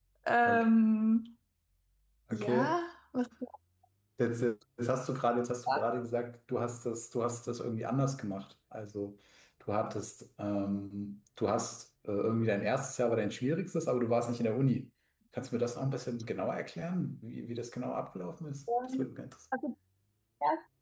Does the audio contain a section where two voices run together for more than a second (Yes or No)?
No